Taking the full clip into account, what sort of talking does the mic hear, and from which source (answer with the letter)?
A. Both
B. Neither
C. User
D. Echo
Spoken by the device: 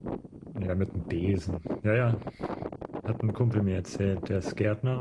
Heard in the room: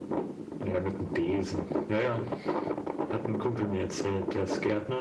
D